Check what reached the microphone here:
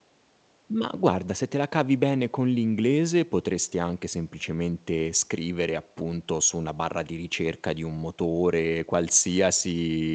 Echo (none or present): none